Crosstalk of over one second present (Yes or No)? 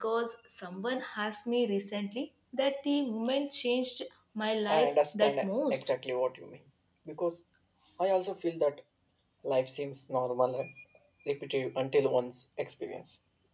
Yes